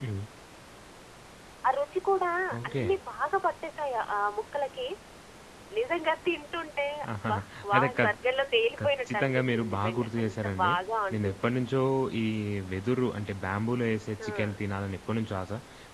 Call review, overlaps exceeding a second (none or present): present